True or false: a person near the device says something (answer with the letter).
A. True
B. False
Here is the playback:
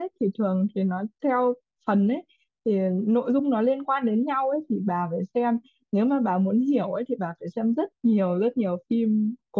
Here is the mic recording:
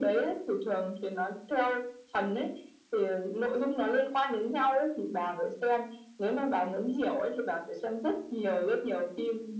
B